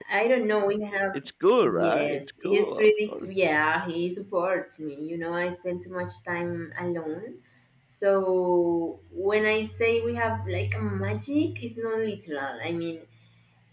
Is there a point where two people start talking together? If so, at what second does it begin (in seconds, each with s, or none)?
1.6 s